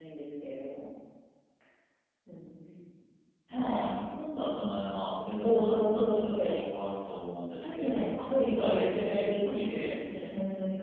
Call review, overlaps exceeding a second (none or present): present